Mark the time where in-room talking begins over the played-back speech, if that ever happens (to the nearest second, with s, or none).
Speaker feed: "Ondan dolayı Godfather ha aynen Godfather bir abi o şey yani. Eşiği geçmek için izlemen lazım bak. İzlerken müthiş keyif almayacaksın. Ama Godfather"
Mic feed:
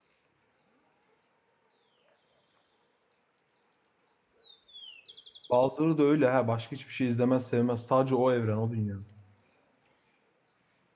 6 s